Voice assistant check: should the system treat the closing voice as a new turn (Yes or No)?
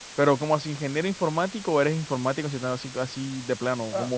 Yes